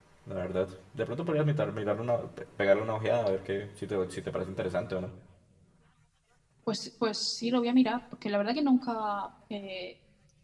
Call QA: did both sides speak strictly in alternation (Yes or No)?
Yes